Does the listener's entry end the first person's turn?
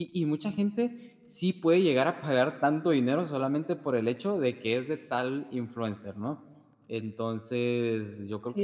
Yes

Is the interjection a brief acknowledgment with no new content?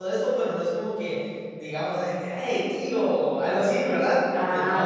No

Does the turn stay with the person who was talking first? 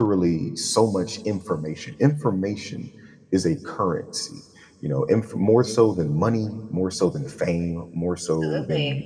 Yes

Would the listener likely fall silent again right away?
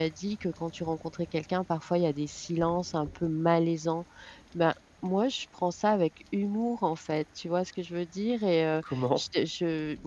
Yes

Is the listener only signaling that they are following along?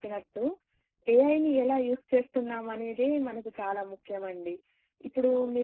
Yes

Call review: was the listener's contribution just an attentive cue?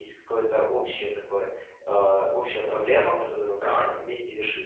Yes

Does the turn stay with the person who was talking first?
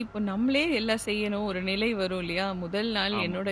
Yes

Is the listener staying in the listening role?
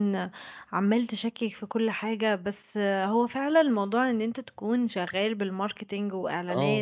Yes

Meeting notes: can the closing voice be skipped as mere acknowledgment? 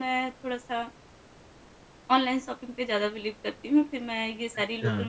Yes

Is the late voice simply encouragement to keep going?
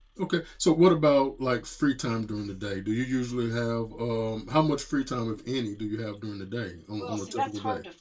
No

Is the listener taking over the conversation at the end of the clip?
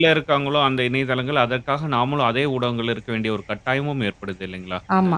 Yes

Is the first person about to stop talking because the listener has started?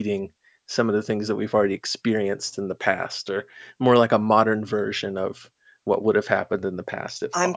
Yes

